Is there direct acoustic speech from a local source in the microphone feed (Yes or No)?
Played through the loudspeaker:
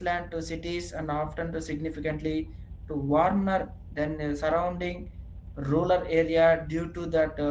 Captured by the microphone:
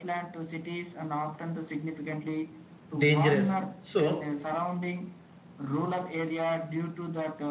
Yes